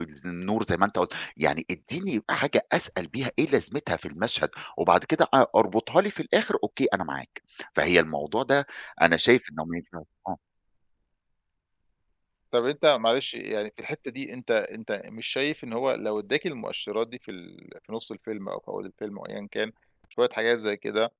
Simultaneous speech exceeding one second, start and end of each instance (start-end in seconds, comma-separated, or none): none